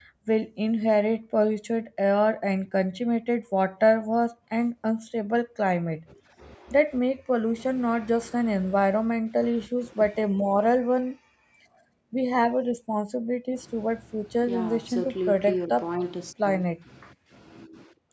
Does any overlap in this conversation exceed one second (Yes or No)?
Yes